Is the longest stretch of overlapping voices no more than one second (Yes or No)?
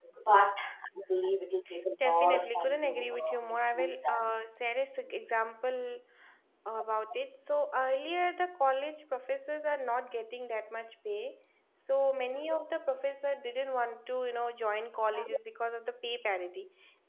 No